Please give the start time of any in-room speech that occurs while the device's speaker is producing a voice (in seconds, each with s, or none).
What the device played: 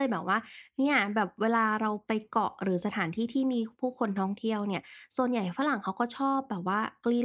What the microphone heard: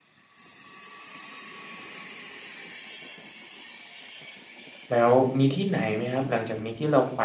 4.9 s